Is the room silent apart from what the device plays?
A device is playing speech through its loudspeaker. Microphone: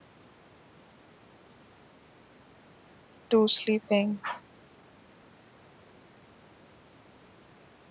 No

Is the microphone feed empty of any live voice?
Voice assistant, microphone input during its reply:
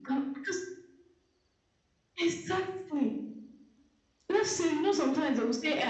Yes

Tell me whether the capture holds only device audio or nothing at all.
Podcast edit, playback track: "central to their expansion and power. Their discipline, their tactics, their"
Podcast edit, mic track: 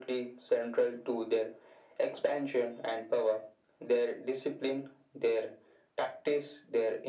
Yes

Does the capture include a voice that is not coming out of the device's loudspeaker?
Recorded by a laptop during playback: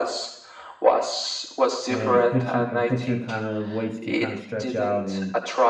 Yes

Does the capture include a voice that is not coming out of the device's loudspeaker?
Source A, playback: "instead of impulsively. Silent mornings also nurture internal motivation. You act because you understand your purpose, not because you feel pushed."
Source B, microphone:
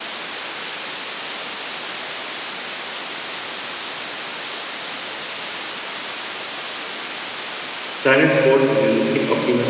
Yes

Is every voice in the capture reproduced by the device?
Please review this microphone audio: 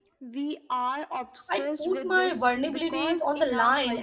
No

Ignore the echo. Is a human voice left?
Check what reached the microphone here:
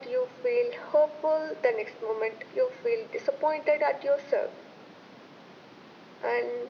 No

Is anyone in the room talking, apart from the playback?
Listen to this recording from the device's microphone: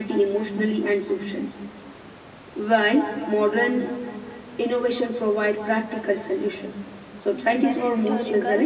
Yes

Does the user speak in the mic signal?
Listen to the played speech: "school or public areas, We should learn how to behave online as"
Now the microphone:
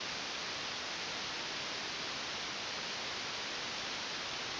No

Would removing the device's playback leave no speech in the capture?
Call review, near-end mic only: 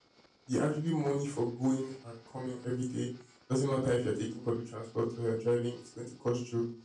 No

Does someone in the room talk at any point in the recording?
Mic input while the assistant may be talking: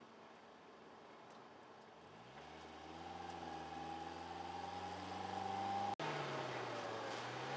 No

